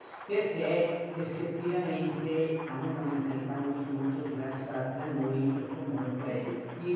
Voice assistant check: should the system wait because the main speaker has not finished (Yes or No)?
Yes